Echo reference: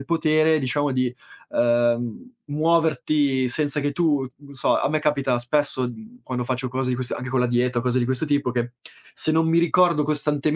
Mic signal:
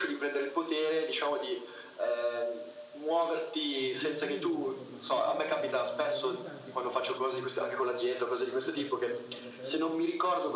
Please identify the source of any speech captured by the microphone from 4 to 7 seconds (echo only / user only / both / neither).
both